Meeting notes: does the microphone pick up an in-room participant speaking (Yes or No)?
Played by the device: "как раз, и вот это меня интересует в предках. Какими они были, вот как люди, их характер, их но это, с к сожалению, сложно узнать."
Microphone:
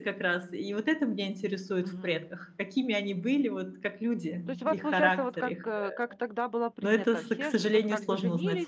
Yes